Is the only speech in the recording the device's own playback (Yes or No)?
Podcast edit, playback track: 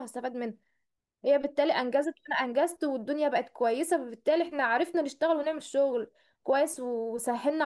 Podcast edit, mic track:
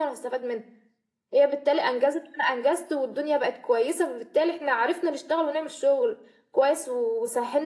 Yes